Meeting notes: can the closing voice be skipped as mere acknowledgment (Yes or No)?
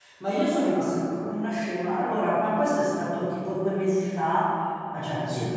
Yes